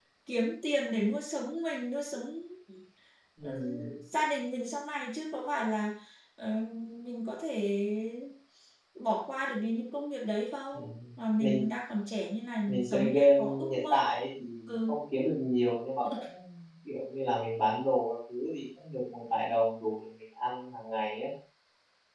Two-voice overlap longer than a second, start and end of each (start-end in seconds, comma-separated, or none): 12.7-14.0